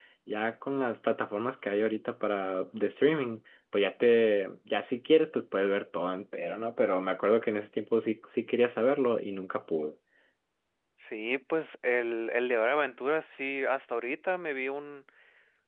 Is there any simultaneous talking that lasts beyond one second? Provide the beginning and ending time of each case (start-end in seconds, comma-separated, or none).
none